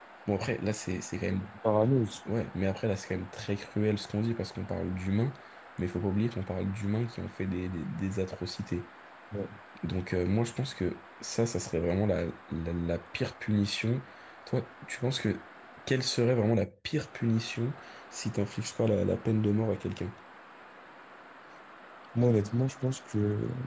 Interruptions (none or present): none